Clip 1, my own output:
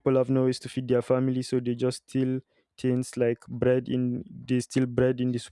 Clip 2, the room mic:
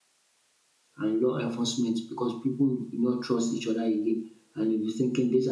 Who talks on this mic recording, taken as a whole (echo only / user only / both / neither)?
user only